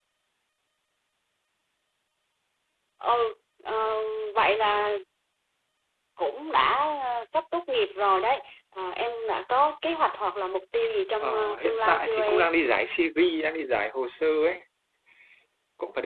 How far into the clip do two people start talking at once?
11.2 s

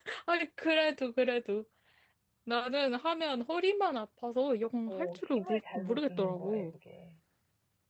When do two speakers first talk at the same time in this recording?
4.9 s

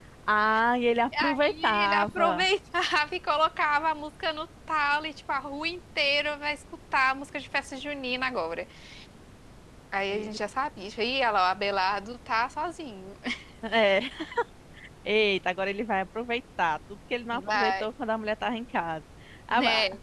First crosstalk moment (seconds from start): 1.2 s

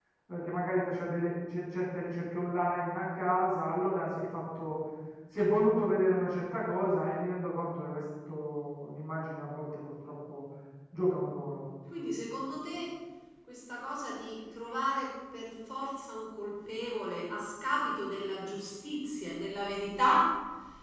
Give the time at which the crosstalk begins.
none

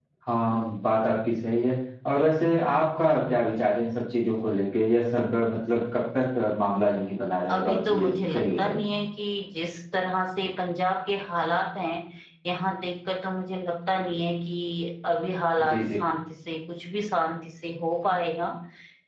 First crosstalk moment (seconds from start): 7.5 s

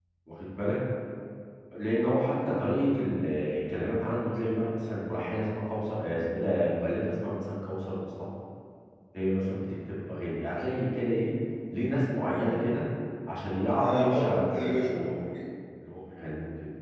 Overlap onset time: 13.8 s

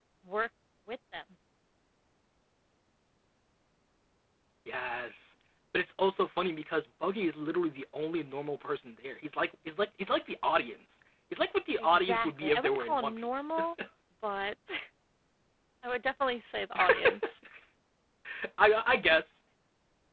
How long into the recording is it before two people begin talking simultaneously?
11.8 s

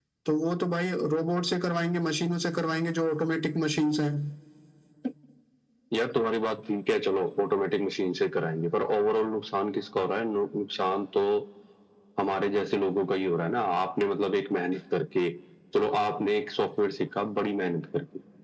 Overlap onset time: none

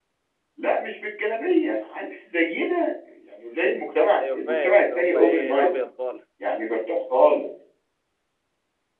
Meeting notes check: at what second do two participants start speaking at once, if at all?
4.2 s

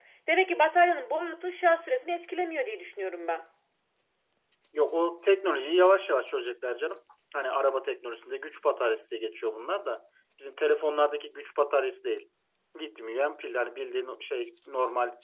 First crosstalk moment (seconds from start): none

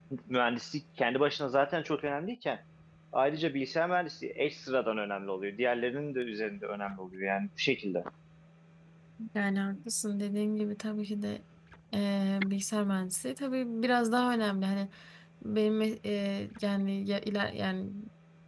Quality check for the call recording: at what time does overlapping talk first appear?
none

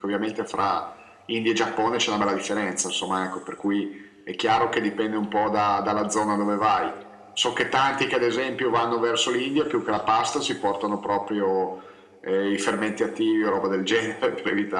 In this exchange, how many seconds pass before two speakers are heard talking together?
none

